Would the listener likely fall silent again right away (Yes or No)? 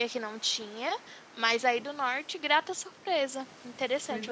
No